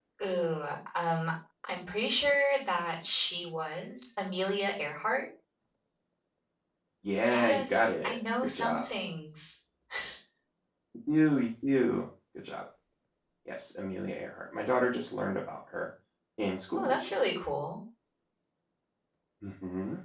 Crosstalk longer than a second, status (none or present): present